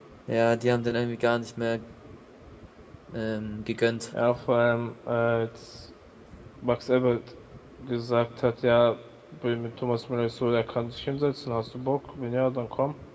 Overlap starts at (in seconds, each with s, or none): none